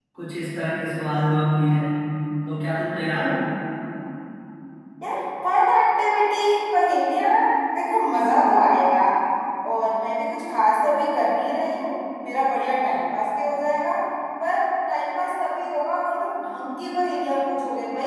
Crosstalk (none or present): none